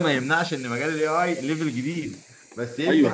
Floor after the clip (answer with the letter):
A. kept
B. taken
A